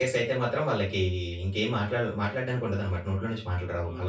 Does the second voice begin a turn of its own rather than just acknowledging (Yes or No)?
Yes